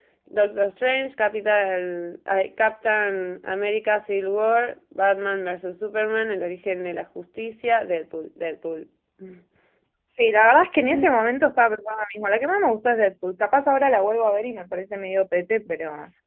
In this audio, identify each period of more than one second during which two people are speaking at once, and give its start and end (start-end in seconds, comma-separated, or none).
none